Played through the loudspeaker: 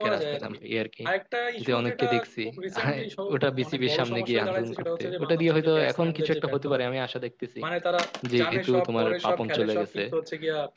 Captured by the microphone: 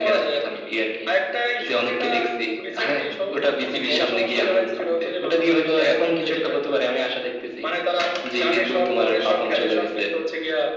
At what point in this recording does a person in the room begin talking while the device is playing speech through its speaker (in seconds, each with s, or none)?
none